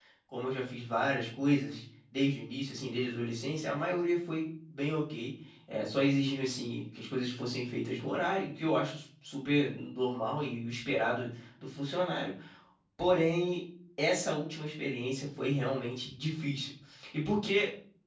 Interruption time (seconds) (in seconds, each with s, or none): none